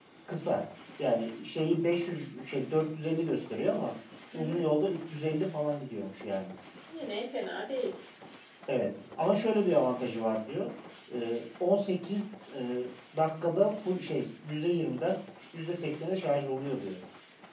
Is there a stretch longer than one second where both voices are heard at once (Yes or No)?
No